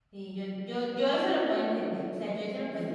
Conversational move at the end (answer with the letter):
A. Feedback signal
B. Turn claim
B